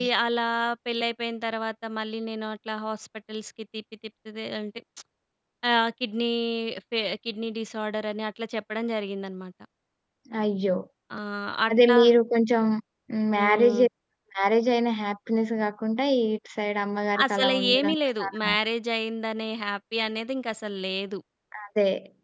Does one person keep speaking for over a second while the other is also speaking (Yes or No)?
Yes